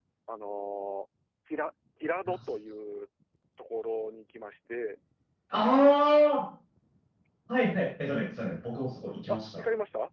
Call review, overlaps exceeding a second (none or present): none